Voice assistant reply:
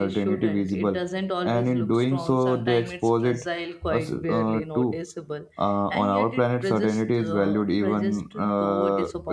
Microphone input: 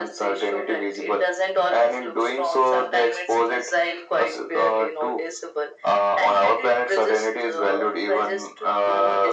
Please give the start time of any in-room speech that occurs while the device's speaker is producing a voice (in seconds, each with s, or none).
none